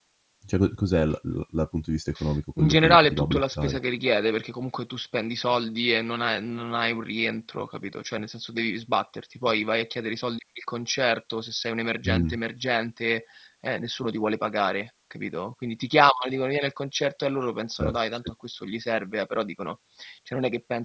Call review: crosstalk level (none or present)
present